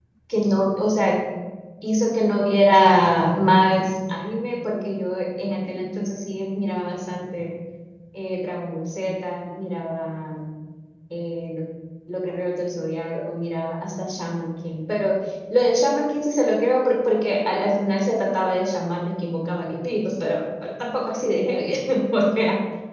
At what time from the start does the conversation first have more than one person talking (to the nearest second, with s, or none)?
none